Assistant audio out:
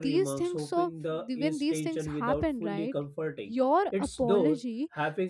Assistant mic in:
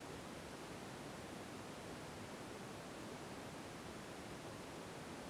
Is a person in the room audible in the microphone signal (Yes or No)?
No